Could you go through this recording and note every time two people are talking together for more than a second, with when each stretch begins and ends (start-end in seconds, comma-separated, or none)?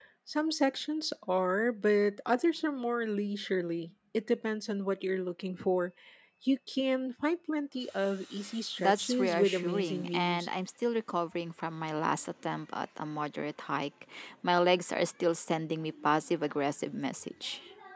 8.8-10.5